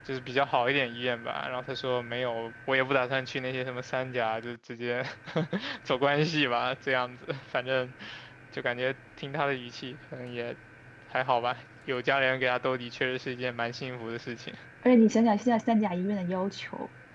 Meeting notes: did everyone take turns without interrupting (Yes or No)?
Yes